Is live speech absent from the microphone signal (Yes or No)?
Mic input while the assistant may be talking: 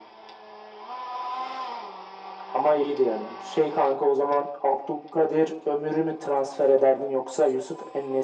Yes